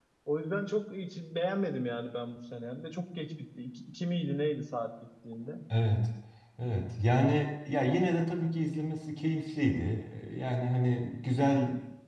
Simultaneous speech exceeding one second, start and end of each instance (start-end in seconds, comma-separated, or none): none